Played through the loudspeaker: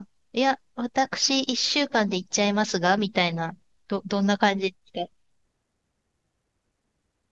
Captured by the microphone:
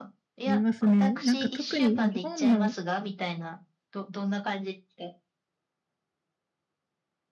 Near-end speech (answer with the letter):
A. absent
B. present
B